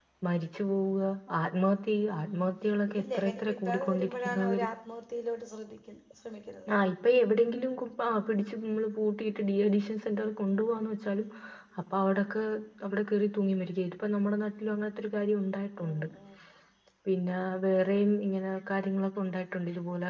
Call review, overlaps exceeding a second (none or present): present